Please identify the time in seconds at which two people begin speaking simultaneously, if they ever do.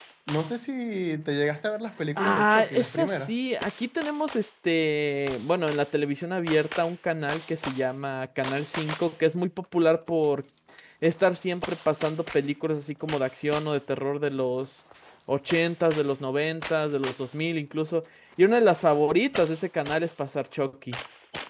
2.1 s

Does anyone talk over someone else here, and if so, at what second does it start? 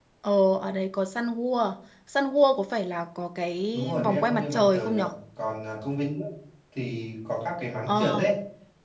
3.7 s

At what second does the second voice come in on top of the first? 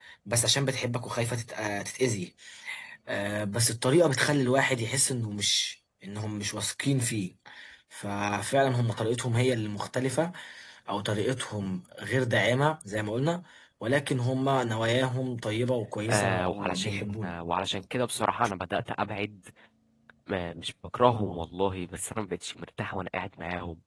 16.1 s

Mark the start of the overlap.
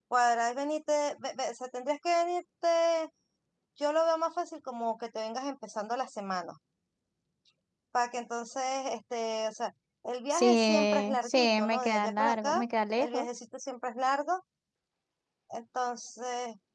10.3 s

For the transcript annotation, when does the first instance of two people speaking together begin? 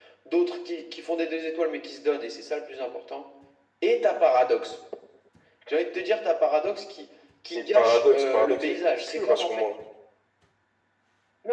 7.5 s

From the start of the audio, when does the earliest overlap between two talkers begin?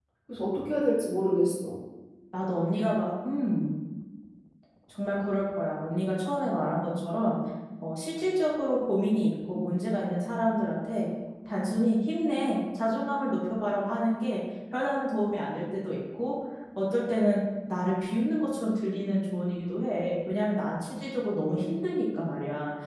none

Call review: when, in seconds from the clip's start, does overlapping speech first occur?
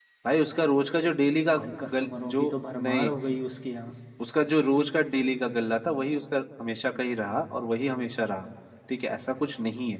1.9 s

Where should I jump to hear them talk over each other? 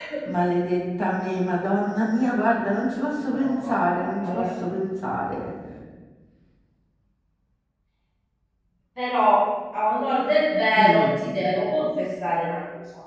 3.2 s

